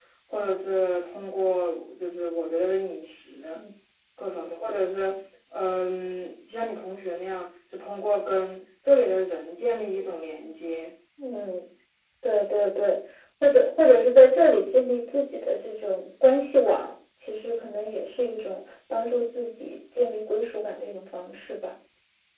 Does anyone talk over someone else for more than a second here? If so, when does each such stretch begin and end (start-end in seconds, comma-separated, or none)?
none